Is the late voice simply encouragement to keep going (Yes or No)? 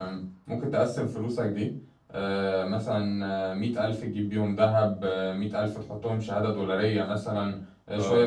Yes